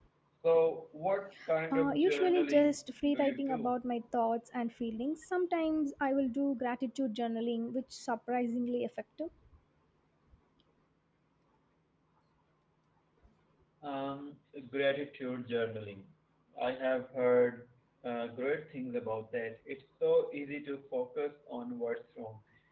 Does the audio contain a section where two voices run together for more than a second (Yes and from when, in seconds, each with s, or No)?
Yes, from 1.7 s